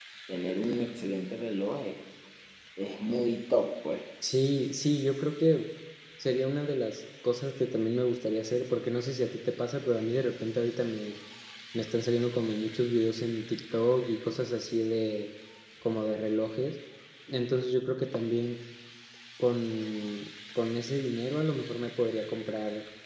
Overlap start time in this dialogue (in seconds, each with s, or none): none